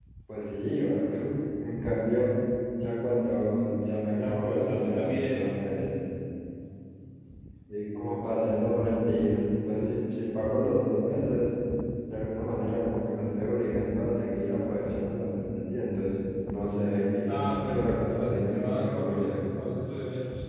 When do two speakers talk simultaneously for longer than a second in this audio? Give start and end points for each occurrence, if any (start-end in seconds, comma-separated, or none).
4.1-5.6, 17.2-19.5